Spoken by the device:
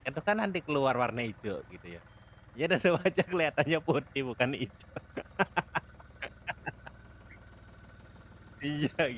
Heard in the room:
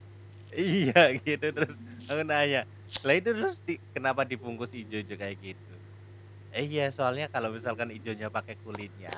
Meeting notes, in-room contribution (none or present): present